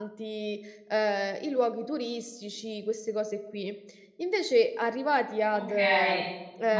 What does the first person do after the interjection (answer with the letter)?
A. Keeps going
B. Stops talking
B